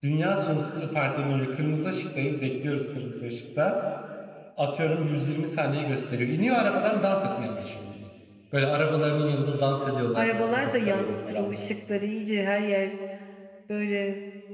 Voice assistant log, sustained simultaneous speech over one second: present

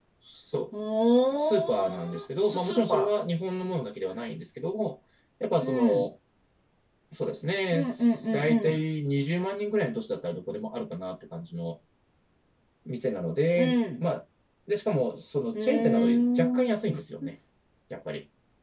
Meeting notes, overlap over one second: present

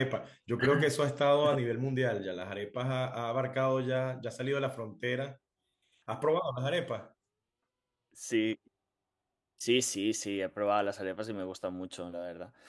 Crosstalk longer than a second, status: none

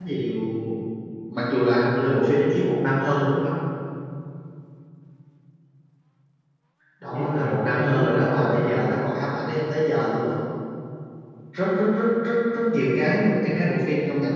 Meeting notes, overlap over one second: present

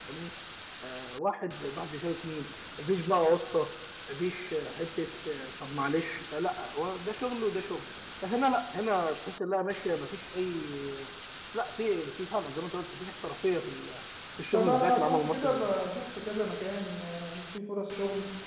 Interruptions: present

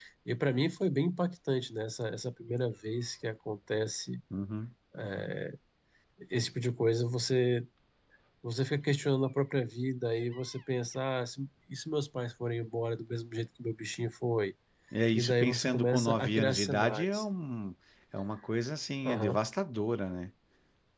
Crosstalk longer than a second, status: present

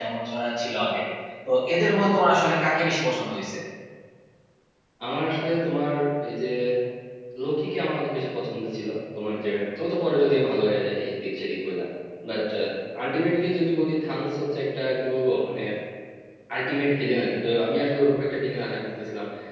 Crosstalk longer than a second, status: none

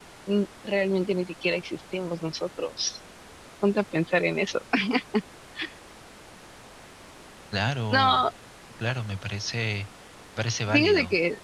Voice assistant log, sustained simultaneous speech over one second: none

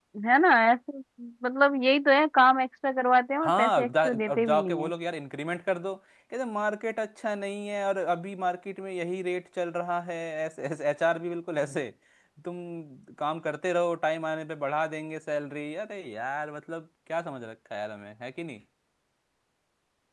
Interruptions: present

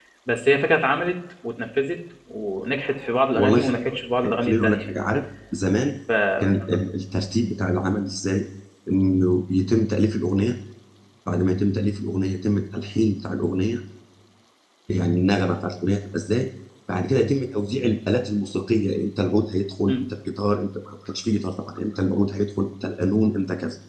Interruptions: present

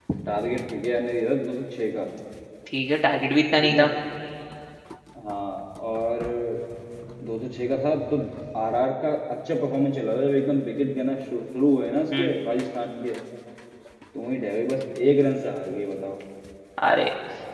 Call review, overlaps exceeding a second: none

